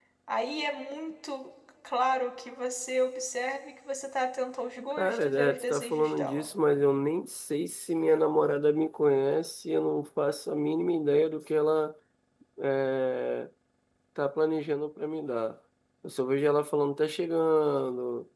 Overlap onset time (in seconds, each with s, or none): 5.0 s